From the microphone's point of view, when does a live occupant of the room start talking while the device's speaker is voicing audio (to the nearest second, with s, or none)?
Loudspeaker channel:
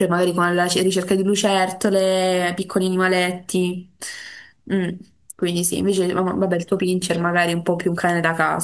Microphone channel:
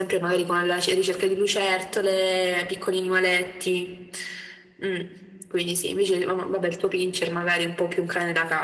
none